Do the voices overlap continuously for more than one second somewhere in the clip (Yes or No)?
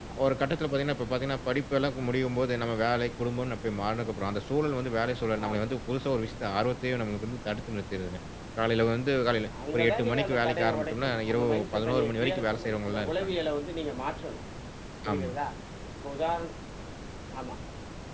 Yes